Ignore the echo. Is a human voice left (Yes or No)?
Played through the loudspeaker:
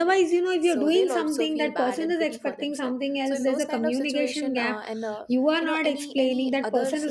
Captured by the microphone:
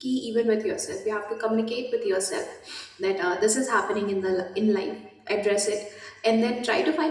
Yes